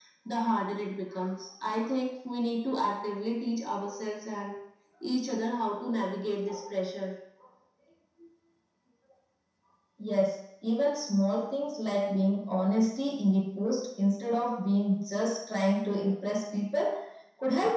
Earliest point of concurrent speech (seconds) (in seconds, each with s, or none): none